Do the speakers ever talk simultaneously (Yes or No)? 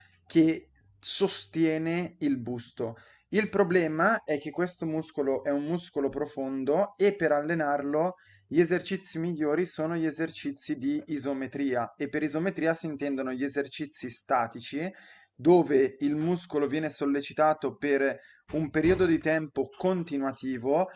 No